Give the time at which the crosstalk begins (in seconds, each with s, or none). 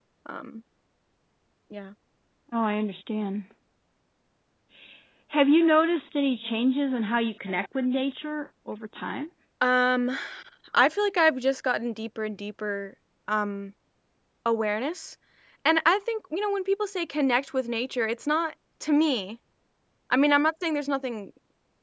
none